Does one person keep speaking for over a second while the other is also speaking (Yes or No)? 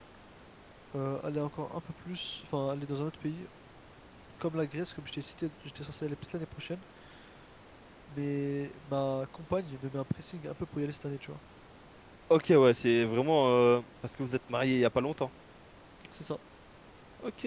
No